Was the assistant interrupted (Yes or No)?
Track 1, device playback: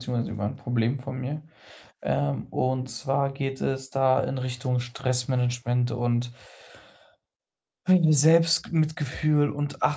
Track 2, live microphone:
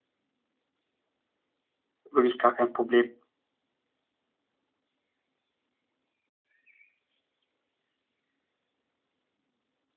Yes